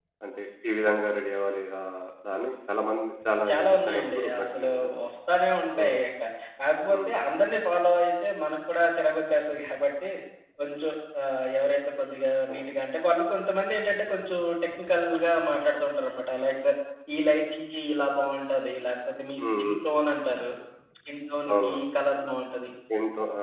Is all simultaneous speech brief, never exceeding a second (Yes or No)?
No